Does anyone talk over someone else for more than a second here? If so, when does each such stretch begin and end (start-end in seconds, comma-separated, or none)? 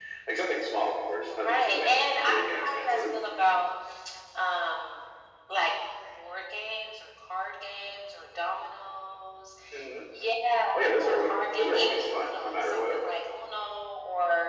1.4-3.1, 11.0-13.0